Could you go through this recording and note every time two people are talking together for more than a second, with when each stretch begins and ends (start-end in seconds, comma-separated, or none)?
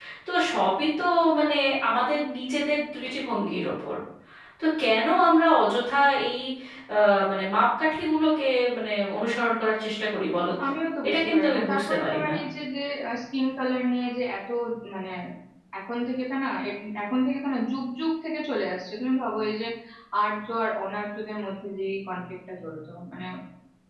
11.1-12.3